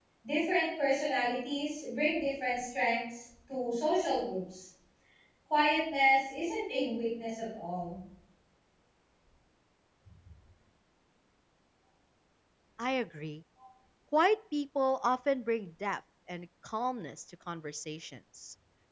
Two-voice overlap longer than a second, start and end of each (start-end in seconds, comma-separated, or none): none